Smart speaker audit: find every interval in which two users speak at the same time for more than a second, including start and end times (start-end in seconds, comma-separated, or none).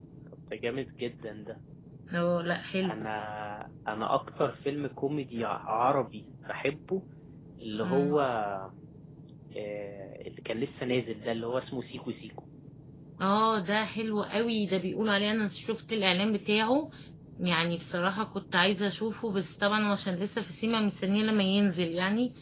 none